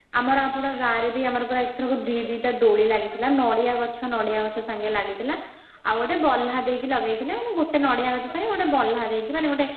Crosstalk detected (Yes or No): No